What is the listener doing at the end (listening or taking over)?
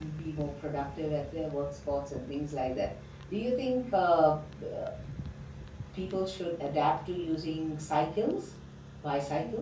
taking over